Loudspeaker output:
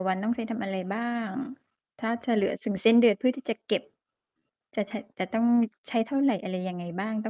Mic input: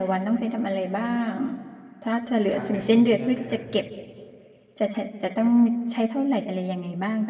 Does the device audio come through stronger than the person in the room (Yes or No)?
Yes